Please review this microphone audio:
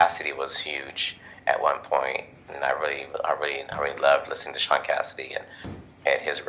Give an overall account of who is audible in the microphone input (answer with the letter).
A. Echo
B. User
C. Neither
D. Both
A